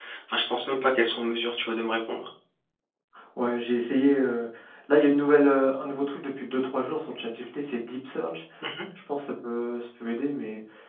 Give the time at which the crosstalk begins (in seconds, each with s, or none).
none